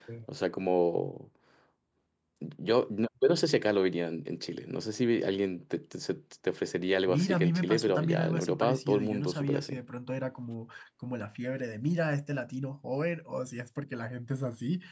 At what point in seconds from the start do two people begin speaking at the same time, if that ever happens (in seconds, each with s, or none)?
7.1 s